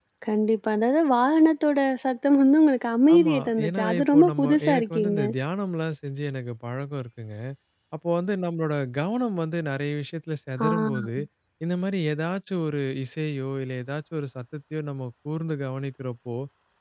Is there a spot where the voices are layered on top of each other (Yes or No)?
Yes